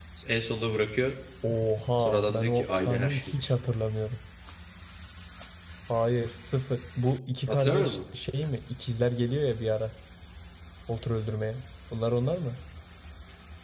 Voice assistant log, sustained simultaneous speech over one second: present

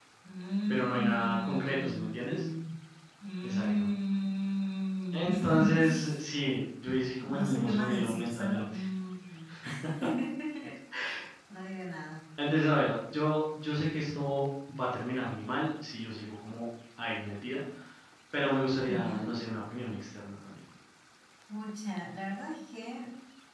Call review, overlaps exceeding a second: present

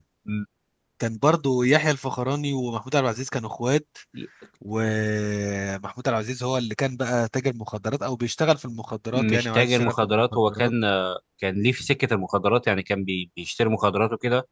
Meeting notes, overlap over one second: present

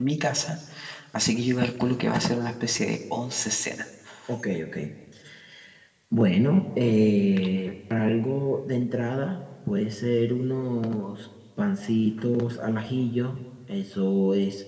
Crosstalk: none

